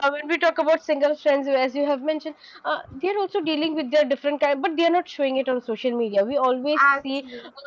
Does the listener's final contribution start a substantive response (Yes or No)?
No